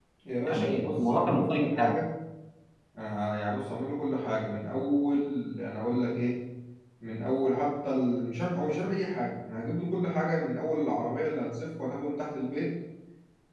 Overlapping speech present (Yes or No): Yes